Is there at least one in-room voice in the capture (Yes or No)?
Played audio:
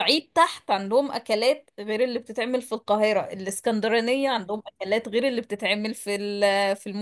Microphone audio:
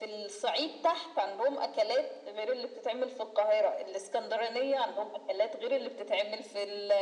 No